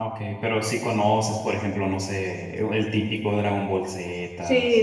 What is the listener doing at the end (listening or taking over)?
taking over